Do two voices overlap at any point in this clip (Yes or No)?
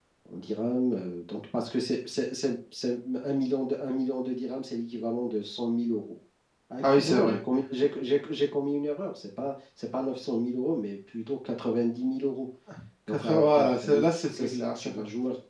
Yes